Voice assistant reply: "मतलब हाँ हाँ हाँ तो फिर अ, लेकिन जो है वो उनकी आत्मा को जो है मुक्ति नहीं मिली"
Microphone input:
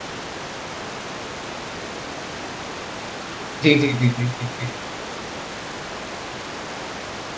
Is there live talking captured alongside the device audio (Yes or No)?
Yes